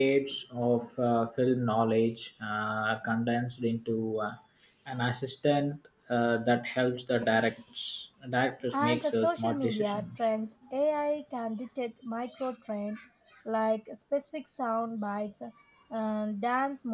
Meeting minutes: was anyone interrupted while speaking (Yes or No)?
Yes